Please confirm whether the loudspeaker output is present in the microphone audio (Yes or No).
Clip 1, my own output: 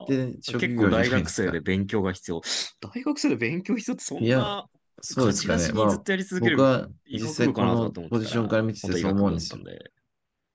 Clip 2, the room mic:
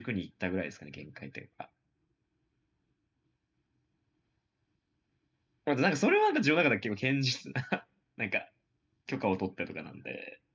No